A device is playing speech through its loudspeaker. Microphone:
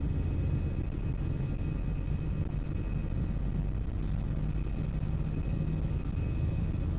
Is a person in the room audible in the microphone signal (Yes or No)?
No